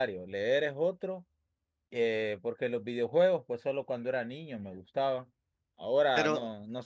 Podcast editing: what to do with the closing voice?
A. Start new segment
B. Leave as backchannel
B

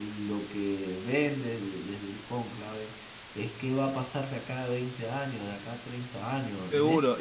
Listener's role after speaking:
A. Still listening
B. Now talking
B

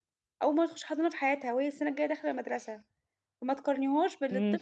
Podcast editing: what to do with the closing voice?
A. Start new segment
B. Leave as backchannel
B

